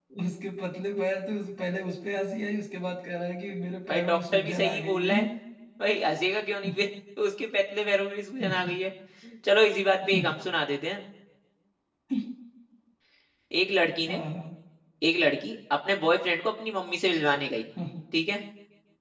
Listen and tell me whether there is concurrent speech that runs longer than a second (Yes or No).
Yes